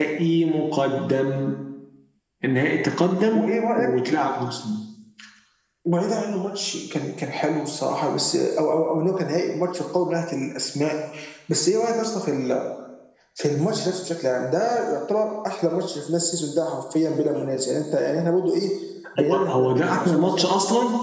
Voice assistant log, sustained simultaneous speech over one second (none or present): present